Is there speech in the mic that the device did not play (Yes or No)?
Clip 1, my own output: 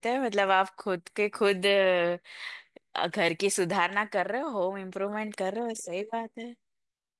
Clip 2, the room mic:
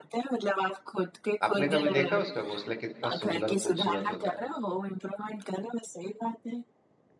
Yes